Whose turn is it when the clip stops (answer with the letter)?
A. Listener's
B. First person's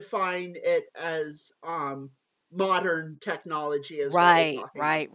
A